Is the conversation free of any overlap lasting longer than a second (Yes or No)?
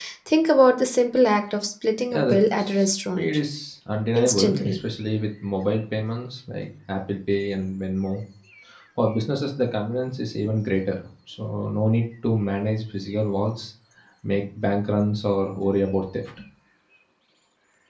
No